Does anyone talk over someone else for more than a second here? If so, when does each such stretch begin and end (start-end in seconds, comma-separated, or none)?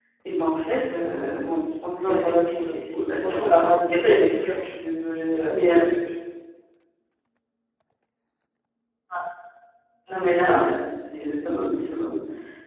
2.0-4.7